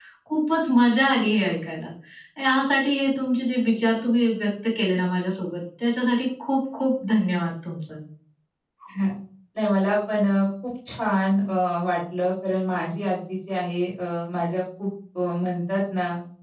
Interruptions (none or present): none